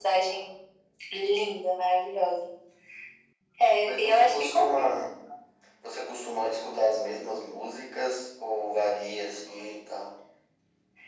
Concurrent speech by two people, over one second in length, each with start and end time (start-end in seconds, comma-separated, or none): 3.8-5.1